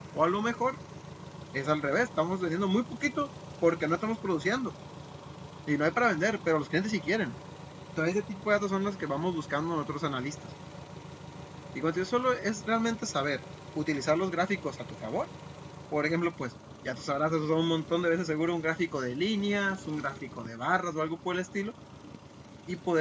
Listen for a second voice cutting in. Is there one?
No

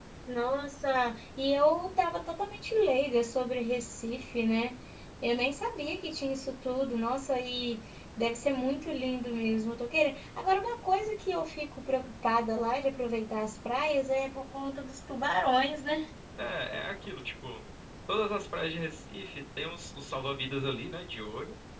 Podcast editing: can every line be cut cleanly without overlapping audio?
Yes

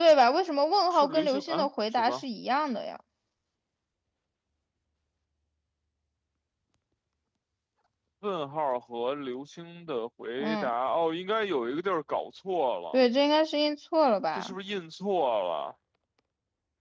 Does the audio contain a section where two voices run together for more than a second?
Yes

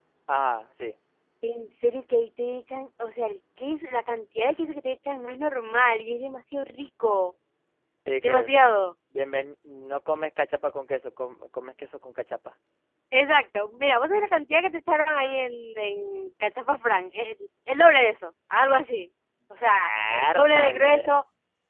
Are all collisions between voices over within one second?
No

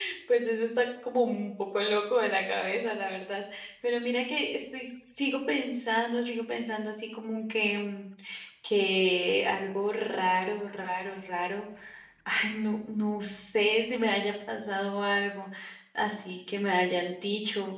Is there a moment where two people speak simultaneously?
No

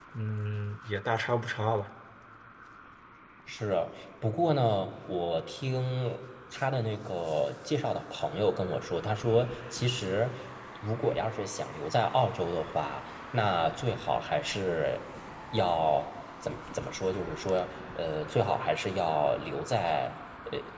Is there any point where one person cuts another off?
No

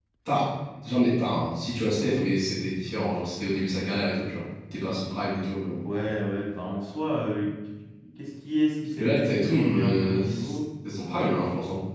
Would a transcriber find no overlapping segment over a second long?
No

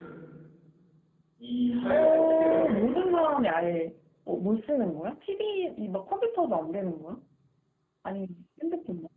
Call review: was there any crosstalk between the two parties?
Yes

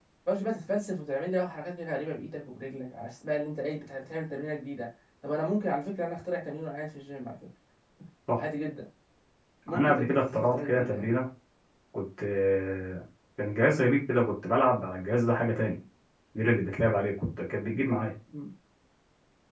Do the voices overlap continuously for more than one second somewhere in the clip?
Yes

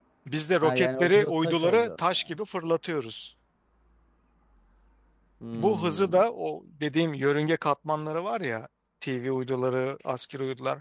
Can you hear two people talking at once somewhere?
Yes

